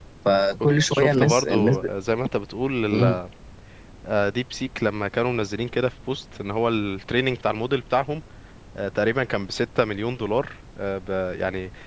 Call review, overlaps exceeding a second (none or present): present